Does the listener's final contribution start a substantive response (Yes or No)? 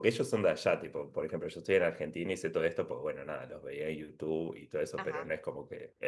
No